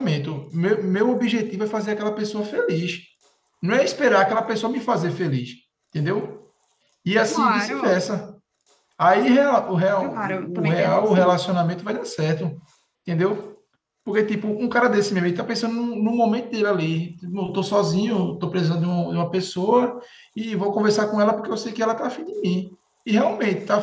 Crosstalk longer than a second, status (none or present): present